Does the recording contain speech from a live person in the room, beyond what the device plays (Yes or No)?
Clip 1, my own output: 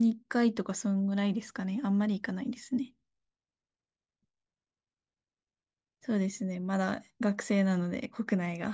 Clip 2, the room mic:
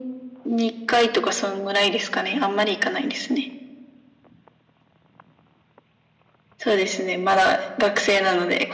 No